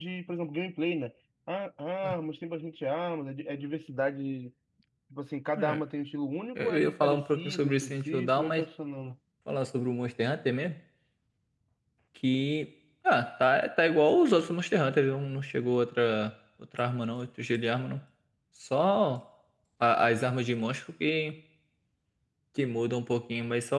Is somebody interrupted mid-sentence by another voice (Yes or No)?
Yes